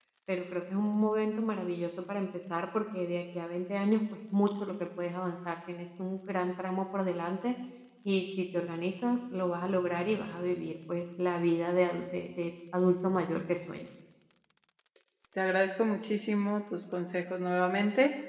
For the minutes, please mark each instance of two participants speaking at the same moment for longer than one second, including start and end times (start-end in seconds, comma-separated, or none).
none